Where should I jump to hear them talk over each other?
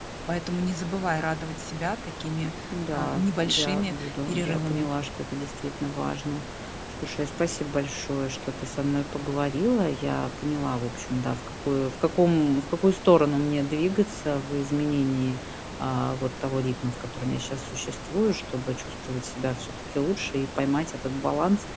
2.9 s

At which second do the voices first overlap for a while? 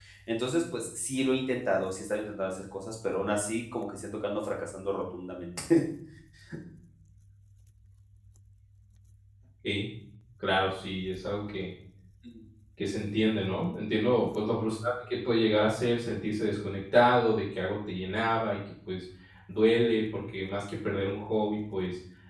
none

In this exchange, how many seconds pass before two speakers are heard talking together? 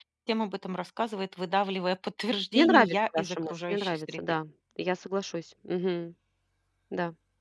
2.5 s

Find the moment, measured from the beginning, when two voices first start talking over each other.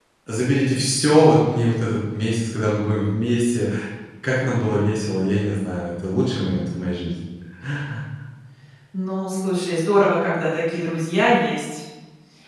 none

